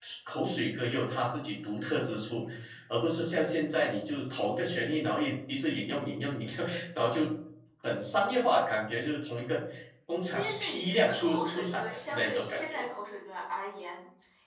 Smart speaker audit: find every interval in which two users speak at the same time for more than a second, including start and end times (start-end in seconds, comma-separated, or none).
10.3-12.8